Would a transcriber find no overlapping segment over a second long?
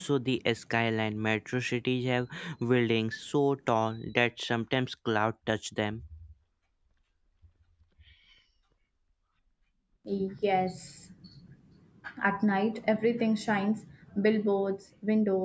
Yes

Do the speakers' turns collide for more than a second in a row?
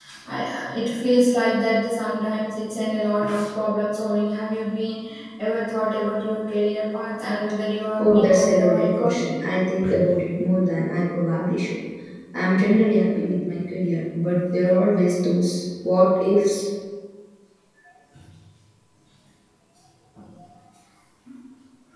Yes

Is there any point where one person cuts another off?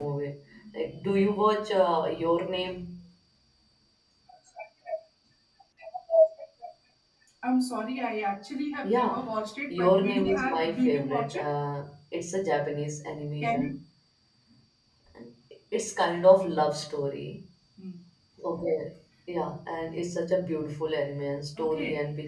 Yes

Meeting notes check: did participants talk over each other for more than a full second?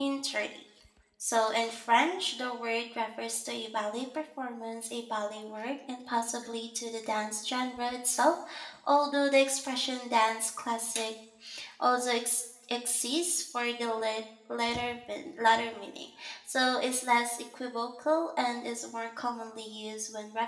No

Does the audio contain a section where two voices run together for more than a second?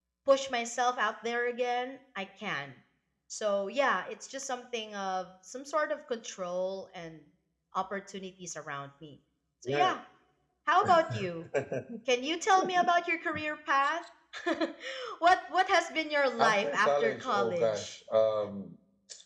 Yes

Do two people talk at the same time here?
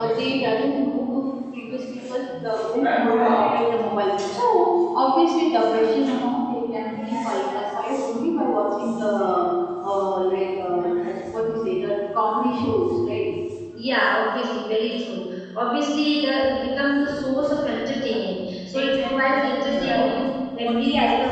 Yes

